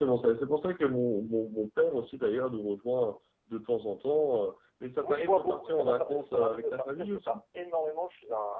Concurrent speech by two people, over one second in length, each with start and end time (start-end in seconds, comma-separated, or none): 5.0-7.4